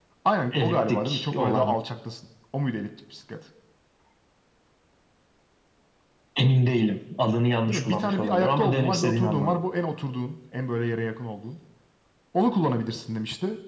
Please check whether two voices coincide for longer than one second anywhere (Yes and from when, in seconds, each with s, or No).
Yes, from 0.5 s